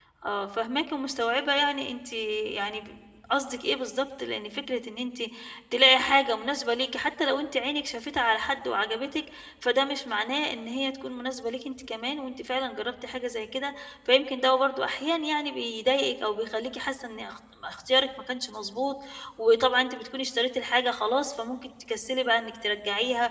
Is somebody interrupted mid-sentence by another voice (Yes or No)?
No